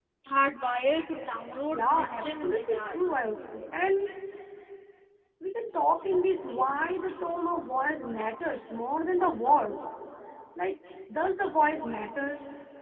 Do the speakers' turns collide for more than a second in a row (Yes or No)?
Yes